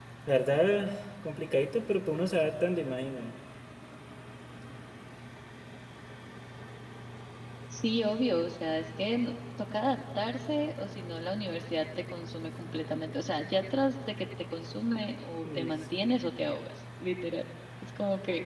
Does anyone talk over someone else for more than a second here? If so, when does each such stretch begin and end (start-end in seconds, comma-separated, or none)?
none